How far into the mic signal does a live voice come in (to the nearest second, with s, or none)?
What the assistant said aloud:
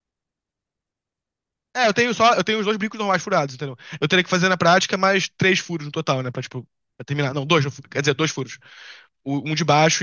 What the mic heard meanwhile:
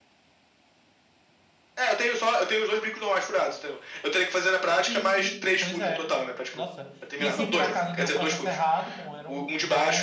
5 s